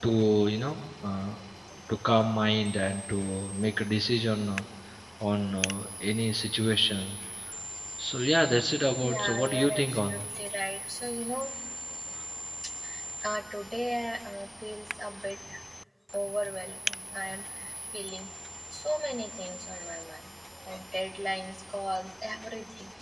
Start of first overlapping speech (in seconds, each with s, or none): 9.0 s